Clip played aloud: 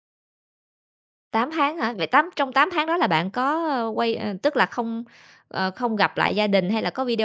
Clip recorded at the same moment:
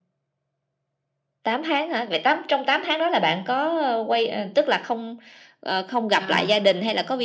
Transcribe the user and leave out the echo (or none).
à,